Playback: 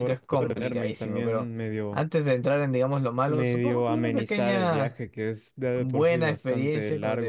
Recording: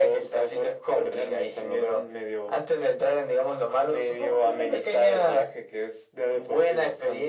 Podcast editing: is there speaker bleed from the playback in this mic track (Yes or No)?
Yes